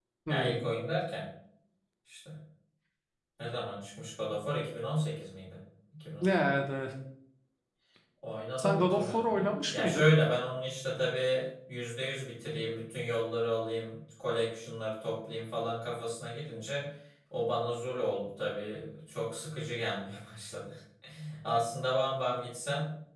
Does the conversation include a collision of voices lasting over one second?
Yes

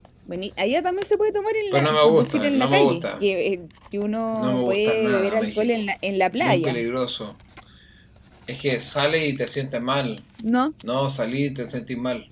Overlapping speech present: Yes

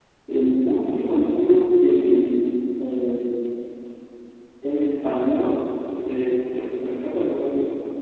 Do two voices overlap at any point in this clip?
No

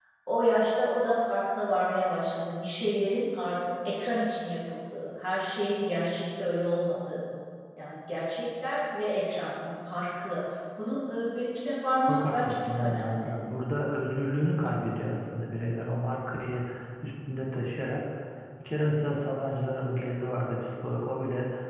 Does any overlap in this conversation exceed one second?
Yes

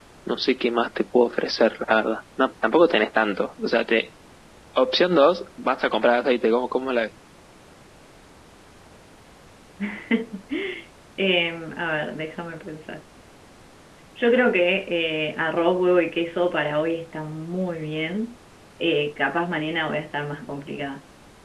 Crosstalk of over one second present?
No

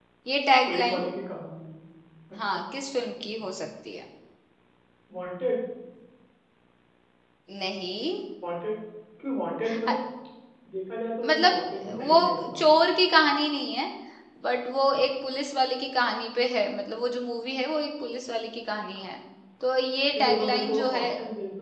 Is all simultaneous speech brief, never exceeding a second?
No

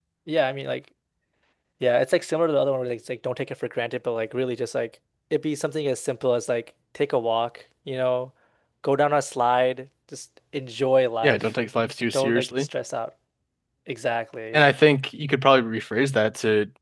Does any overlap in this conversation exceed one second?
No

